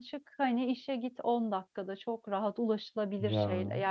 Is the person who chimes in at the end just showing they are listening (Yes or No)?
Yes